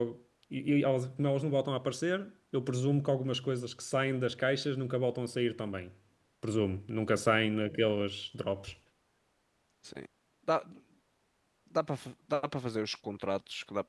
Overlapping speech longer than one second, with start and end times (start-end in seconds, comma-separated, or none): none